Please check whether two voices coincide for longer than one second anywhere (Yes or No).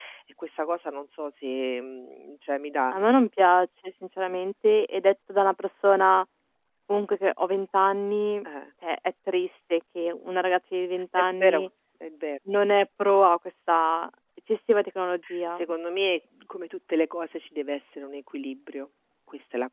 No